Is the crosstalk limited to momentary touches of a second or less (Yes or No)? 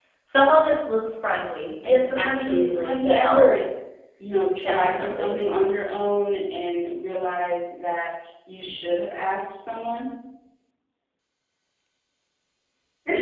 No